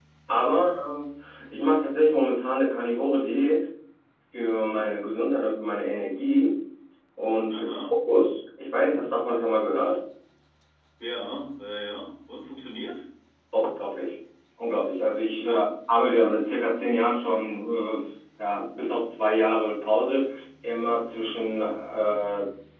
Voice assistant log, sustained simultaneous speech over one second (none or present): none